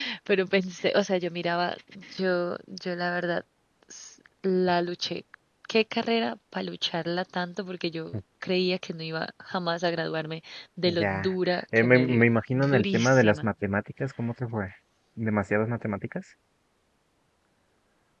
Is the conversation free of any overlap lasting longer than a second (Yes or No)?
No